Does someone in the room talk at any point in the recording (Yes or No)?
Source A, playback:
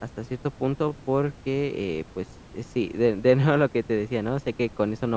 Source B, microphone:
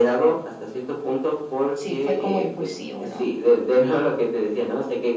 Yes